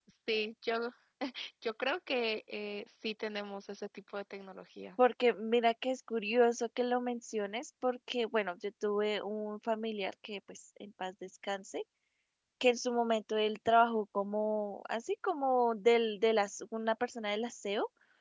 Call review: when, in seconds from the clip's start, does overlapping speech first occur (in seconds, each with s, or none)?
none